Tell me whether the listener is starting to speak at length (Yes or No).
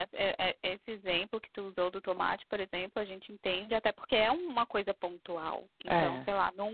No